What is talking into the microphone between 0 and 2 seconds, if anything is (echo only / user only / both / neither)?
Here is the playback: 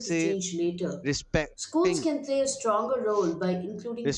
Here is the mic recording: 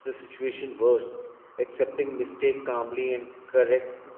user only